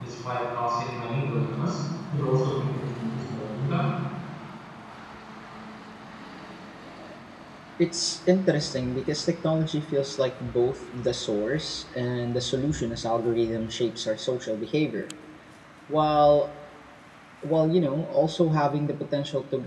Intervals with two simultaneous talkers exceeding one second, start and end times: none

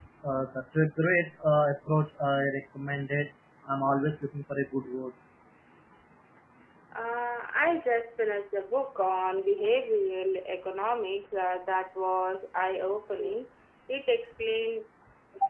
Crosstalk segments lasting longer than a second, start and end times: none

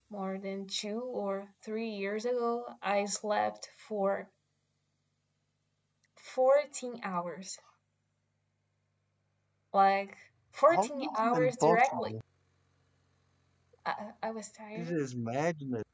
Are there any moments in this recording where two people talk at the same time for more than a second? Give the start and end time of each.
10.7-12.1

